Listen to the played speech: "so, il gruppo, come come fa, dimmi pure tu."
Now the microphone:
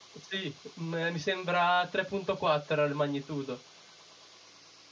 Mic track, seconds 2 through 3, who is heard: user only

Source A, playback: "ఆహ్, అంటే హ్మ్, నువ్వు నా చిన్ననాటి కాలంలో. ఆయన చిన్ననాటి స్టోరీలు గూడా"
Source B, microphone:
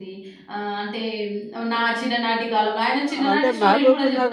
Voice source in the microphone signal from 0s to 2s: echo only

